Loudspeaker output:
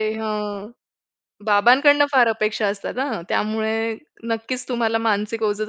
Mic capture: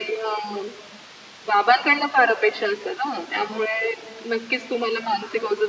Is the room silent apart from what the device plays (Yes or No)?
Yes